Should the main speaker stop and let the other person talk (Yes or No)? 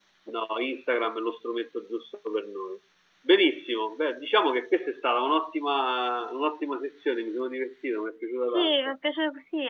Yes